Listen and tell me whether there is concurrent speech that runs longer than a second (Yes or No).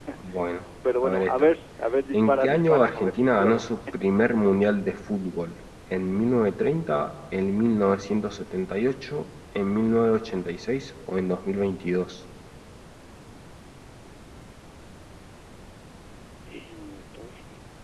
Yes